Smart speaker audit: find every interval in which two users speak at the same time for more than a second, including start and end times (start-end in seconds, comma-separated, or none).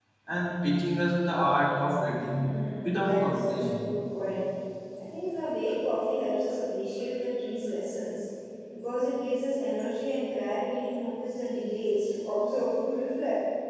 2.3-3.8